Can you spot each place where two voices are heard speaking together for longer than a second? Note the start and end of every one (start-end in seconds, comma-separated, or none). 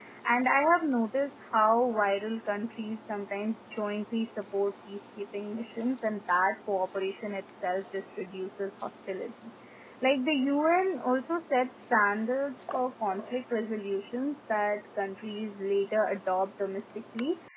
none